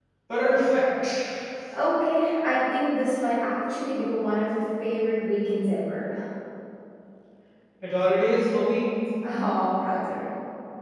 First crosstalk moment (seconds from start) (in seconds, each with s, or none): none